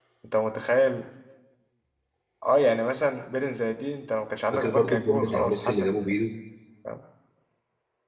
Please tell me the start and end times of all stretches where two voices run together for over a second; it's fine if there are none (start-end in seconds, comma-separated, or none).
4.5-6.0